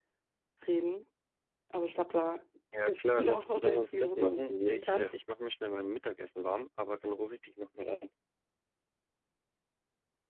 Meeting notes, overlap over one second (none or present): present